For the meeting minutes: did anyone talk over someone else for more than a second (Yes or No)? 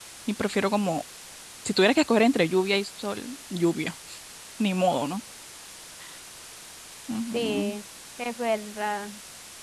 No